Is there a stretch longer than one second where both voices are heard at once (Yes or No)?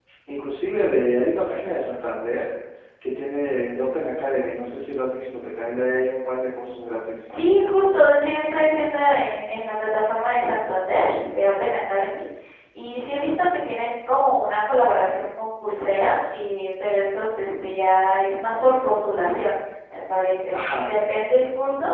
No